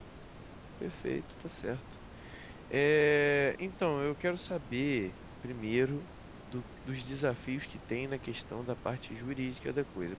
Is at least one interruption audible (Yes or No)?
No